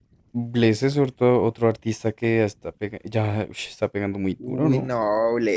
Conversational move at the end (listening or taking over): taking over